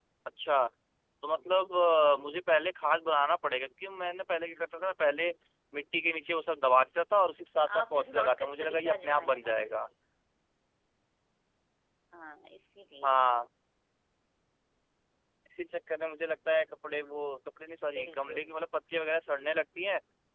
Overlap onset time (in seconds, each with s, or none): 7.8 s